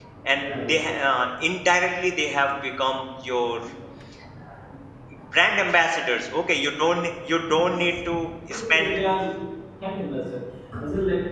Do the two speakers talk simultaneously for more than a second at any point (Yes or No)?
No